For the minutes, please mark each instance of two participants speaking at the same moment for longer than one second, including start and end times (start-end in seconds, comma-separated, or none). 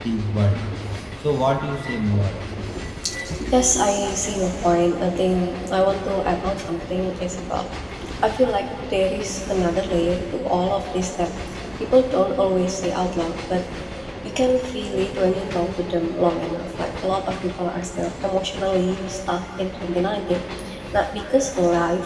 none